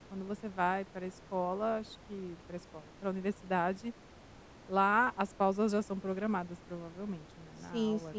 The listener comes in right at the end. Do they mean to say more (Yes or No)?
Yes